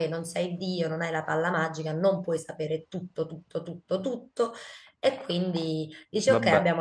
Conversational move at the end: listening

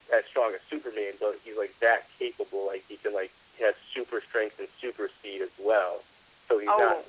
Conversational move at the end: listening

